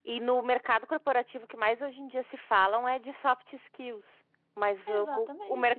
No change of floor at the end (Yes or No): Yes